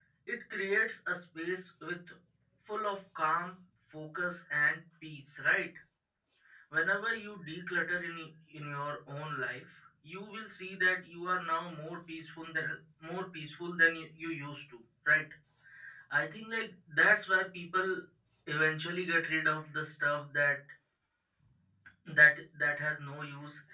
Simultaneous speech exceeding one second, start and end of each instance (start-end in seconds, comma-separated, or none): none